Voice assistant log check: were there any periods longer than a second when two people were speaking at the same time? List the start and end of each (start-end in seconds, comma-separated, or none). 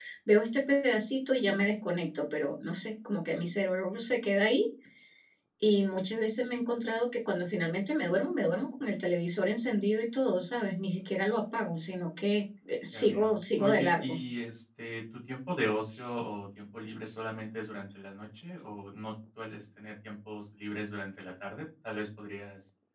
12.9-14.2